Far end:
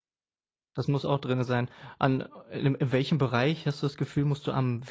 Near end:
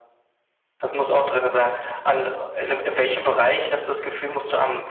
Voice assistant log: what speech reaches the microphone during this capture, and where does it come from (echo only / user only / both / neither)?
echo only